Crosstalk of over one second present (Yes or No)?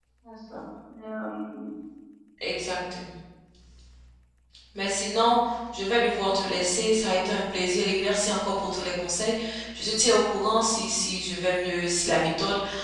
No